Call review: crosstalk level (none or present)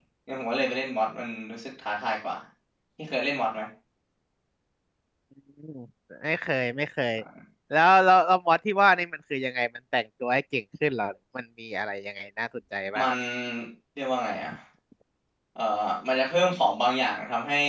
none